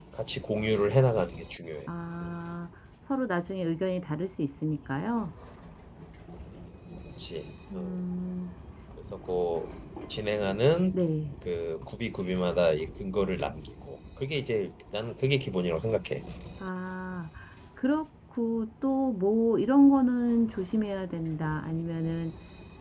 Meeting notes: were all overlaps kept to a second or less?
Yes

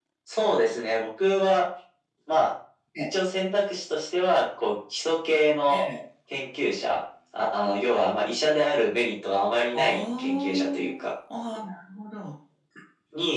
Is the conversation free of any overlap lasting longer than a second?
No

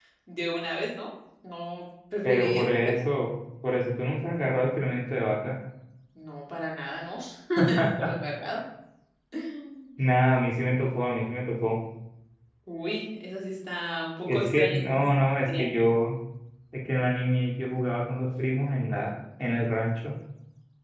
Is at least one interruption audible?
Yes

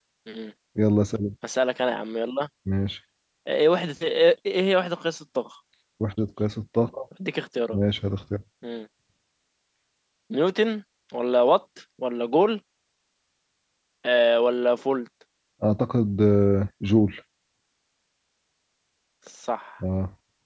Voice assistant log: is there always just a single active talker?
Yes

